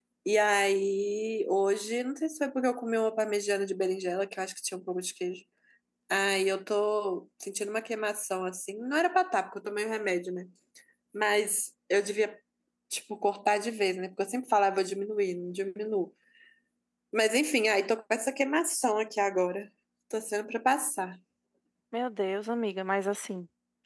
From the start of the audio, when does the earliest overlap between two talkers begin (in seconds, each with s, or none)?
none